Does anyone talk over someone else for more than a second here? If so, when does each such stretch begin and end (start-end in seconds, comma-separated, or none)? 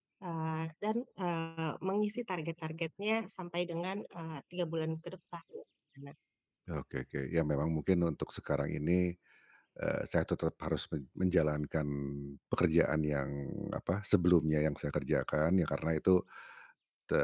none